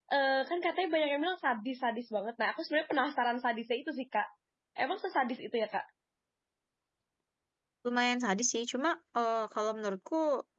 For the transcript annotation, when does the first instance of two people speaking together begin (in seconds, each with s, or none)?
none